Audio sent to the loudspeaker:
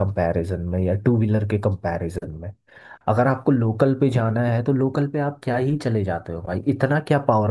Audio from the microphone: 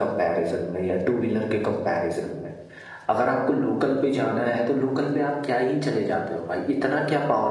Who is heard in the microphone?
echo only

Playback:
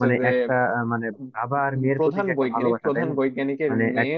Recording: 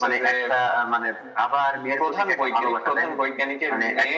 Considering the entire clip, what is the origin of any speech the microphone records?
echo only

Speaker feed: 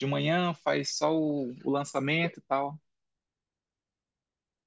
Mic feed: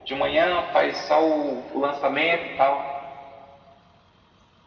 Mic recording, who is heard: echo only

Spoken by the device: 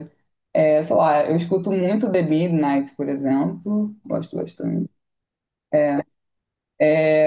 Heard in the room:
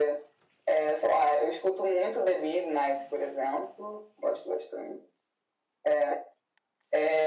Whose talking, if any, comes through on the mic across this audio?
echo only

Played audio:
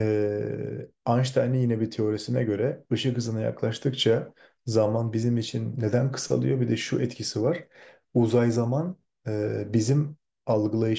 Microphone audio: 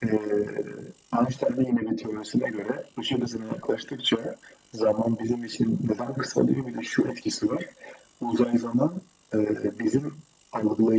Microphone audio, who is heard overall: echo only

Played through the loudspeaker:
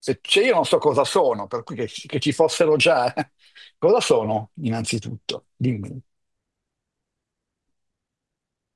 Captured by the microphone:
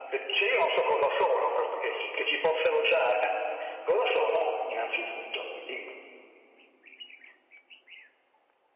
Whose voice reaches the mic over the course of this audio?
echo only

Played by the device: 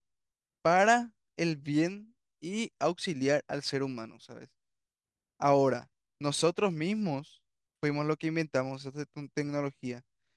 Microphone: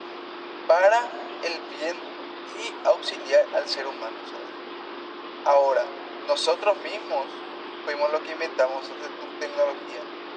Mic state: echo only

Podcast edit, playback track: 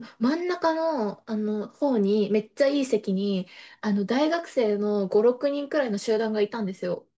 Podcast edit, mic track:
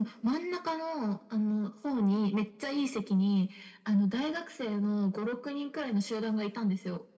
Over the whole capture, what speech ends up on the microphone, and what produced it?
echo only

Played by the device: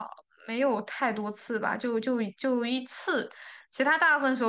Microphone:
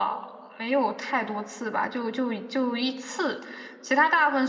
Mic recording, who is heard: echo only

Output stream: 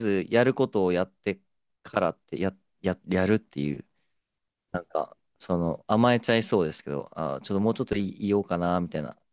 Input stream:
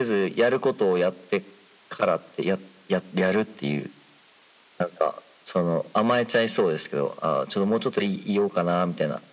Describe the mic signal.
echo only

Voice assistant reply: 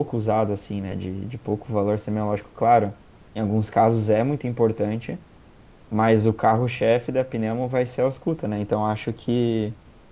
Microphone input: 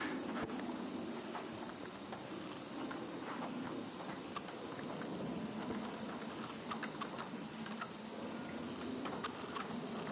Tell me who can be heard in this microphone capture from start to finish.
neither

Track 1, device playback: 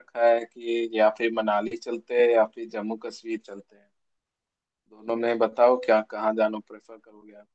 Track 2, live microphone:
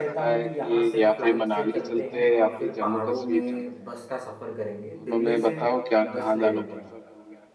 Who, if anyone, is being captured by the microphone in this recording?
both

